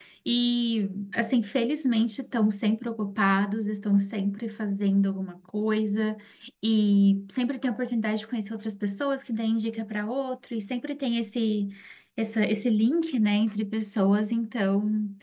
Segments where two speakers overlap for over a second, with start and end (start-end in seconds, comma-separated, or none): none